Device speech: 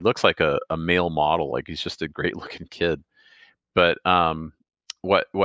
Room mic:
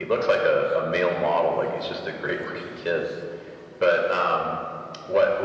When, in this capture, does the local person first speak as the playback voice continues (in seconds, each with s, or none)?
none